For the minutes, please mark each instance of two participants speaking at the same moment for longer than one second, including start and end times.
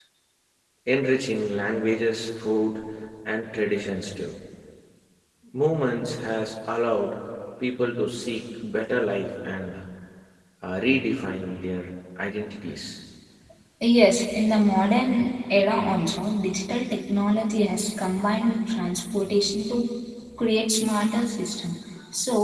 none

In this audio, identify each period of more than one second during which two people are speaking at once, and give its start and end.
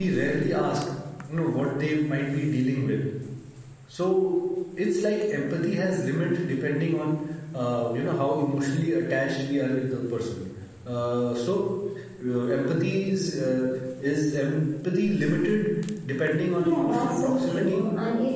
16.6-17.8

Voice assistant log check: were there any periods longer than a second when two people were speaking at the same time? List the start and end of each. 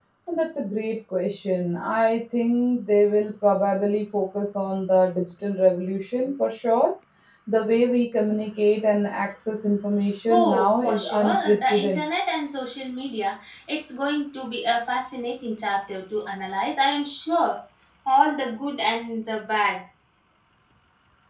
10.3-12.0

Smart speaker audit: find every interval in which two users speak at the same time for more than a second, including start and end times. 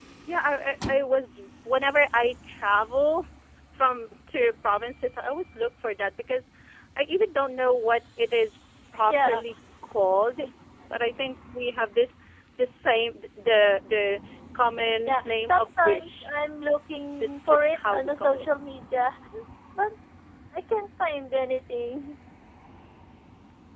15.0-16.3, 17.2-18.4

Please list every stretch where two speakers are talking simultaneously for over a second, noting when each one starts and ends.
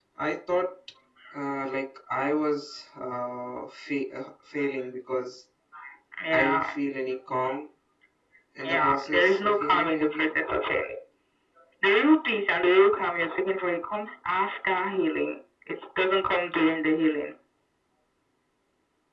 8.6-10.3

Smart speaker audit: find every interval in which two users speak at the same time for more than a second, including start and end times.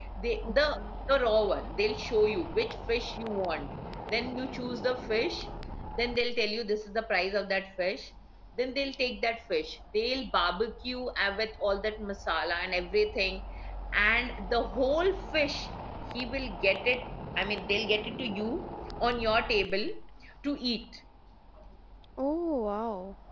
none

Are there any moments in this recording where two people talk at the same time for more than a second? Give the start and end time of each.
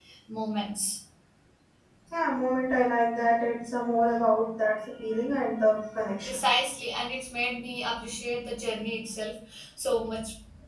none

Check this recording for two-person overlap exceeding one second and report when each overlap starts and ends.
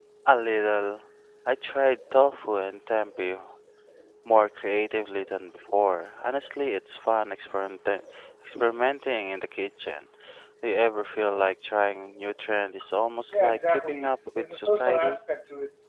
13.3-15.2

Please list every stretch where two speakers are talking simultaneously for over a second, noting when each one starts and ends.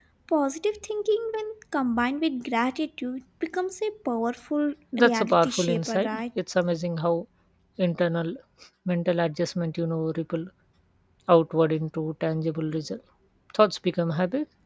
5.0-6.2

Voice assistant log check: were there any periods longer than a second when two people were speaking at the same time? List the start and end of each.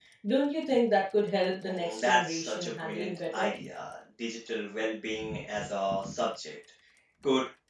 1.6-3.5

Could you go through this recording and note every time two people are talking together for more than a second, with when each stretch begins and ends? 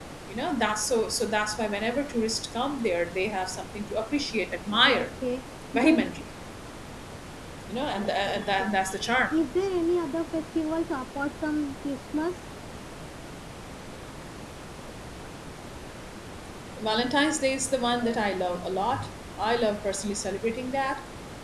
8.0-9.2

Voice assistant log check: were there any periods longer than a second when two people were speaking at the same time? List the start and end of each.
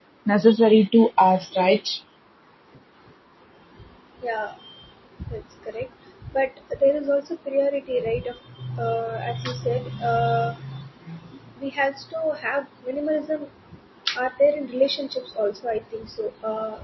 none

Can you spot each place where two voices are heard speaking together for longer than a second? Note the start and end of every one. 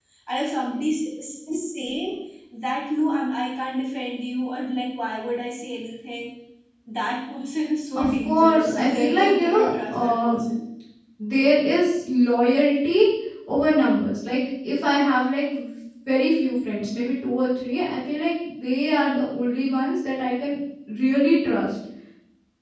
8.0-10.4

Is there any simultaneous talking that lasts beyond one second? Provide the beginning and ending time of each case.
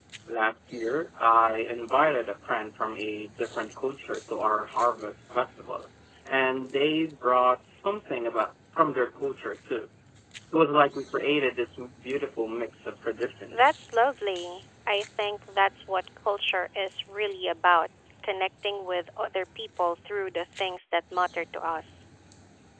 none

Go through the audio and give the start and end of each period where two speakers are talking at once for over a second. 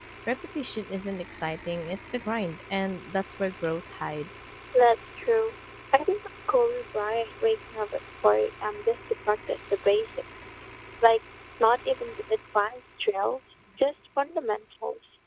none

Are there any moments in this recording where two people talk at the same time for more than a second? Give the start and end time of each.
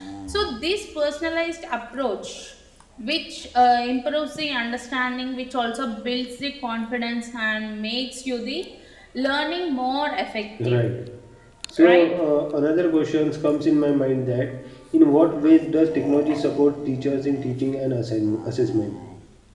none

